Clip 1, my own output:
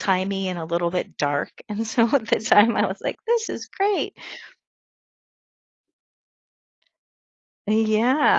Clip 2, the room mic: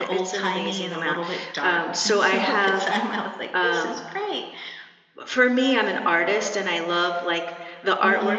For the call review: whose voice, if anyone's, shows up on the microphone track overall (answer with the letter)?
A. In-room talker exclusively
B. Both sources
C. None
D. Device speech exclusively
B